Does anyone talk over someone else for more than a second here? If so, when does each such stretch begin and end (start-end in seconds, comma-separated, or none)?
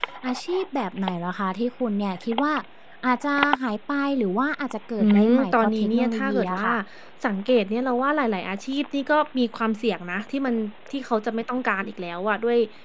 5.0-6.7